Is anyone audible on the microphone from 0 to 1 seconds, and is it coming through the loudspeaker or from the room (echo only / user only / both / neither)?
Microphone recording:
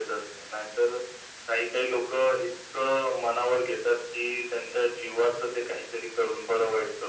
echo only